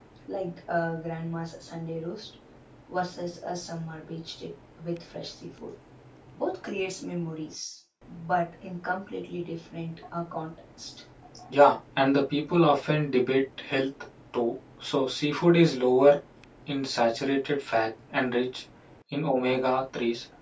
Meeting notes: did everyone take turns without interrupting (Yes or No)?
Yes